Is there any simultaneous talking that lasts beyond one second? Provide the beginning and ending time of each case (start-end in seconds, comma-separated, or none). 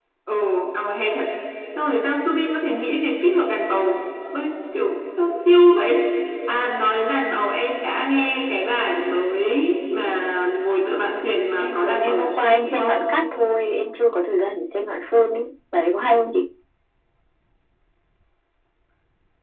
11.6-12.9